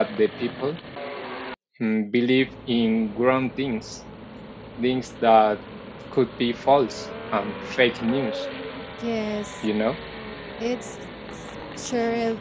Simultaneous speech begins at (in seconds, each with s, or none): none